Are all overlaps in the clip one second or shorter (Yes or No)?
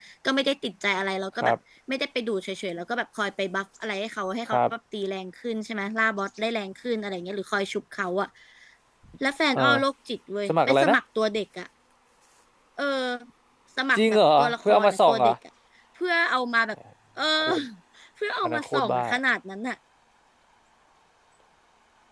No